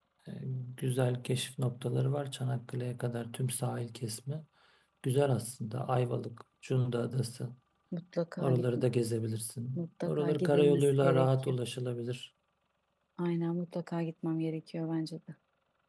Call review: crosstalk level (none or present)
present